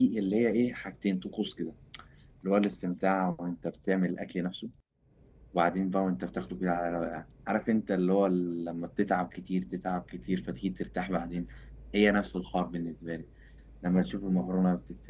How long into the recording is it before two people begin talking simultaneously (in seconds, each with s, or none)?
none